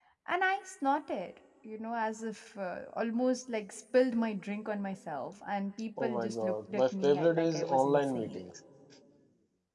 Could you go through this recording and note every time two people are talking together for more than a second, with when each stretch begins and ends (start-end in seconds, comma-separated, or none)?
6.0-8.4